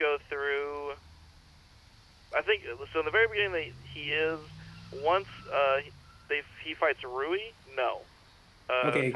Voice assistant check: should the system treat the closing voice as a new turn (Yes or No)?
Yes